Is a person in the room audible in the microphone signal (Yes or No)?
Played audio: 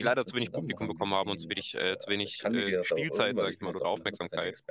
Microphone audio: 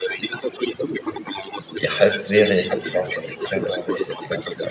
Yes